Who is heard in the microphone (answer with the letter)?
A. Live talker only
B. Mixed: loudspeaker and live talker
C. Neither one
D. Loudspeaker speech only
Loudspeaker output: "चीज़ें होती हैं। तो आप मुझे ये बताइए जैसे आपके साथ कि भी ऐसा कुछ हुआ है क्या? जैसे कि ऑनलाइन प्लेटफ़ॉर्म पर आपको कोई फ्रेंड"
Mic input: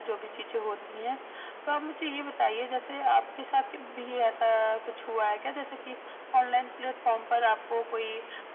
D